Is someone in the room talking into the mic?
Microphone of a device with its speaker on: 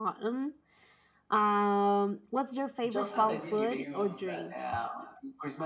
Yes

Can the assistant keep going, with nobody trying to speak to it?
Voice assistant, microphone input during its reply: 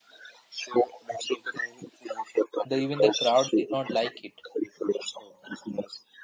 No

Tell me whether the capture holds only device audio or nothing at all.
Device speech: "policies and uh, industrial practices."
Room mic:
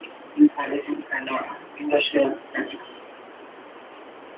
Yes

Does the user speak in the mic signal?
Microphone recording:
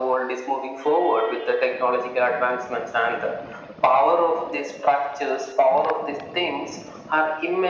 No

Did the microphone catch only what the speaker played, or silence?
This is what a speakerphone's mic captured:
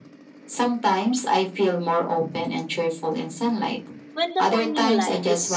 No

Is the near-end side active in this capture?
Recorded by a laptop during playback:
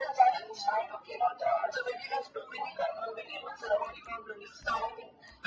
No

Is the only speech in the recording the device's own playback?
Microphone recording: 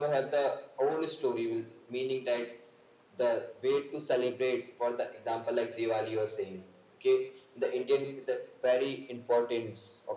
Yes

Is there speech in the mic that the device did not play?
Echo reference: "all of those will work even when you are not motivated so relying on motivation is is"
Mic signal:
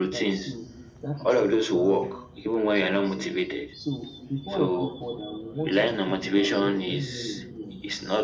Yes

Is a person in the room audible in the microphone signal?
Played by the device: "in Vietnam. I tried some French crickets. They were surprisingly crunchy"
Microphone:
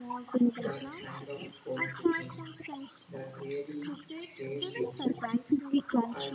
Yes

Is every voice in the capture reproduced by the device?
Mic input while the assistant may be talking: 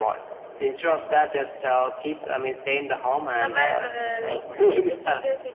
No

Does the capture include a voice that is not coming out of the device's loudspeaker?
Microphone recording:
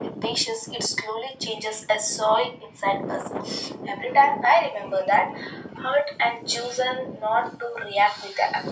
No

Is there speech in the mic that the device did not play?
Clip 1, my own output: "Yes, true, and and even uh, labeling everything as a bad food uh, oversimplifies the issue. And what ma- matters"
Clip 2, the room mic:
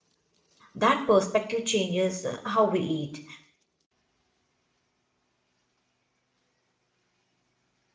Yes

